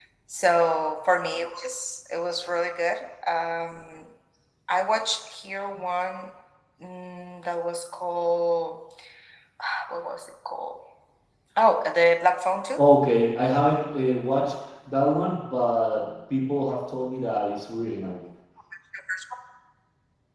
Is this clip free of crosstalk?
Yes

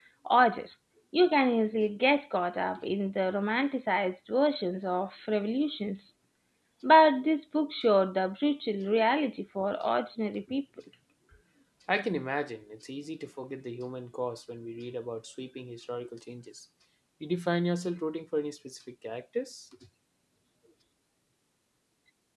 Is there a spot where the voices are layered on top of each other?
No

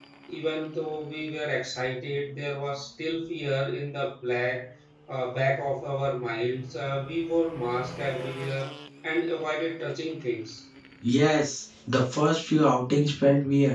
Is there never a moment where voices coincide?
Yes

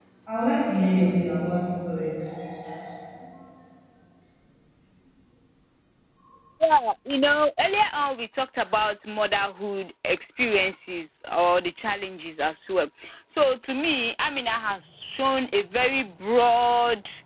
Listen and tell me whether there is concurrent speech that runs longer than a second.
No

